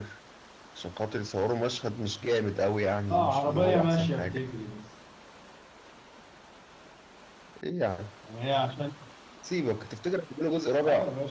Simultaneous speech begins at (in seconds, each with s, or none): 3.1 s